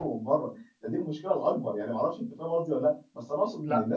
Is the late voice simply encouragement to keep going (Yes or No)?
Yes